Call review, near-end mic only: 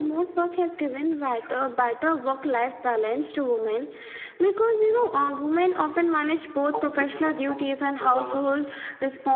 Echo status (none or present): present